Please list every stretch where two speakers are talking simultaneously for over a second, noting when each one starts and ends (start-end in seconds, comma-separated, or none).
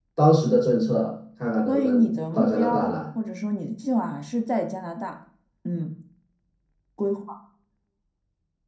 1.7-2.9